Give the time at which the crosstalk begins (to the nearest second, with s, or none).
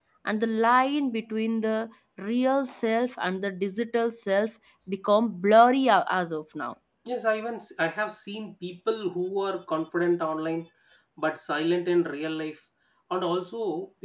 none